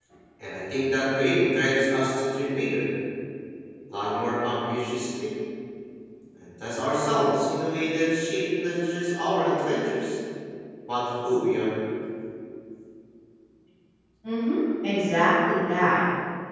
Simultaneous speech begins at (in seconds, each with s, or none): none